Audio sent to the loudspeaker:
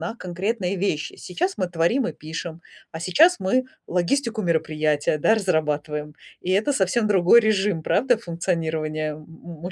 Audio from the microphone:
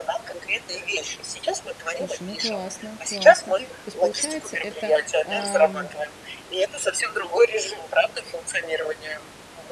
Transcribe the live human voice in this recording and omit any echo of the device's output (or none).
Слушай, ну, классно, классно. То есть получается, это, а, м,